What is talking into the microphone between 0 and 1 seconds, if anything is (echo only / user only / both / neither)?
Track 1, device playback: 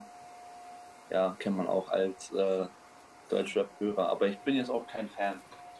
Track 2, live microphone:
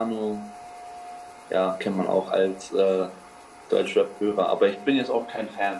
echo only